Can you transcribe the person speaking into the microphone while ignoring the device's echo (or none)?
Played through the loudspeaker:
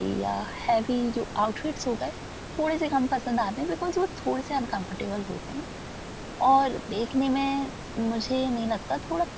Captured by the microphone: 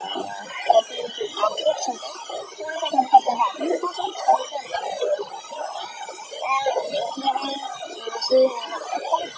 none